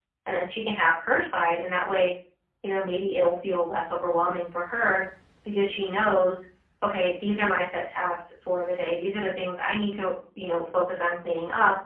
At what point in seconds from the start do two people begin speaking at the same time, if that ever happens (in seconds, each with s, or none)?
none